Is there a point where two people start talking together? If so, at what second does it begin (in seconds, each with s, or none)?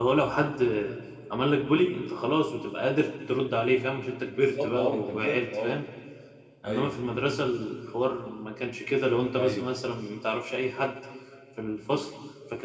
4.3 s